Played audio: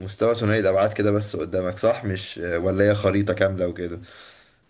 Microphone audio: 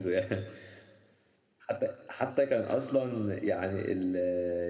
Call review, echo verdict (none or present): none